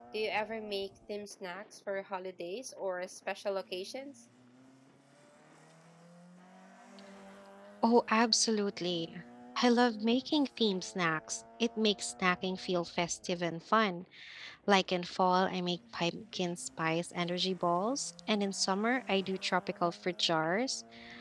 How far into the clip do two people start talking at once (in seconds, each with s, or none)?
none